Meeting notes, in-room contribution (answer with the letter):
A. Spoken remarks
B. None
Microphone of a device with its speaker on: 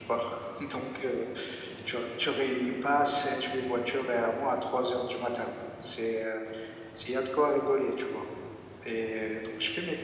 B